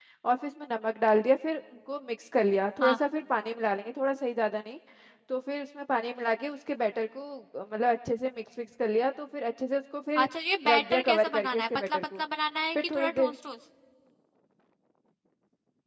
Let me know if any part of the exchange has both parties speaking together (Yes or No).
Yes